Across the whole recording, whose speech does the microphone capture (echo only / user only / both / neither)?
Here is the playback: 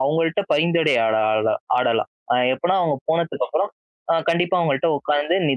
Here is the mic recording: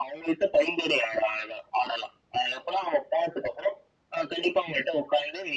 echo only